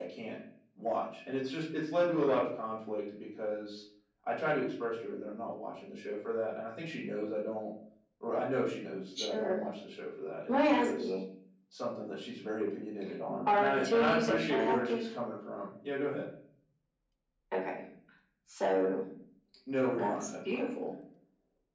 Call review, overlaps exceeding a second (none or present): present